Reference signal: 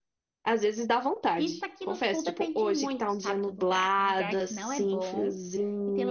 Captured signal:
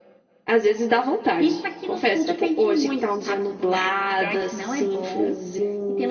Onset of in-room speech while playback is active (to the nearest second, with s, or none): none